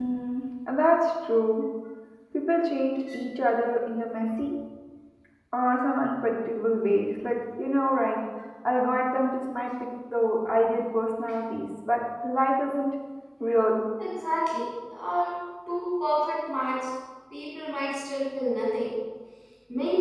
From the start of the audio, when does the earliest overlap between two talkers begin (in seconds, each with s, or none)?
none